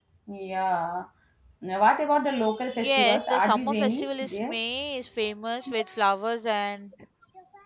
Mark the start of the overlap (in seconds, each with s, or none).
2.7 s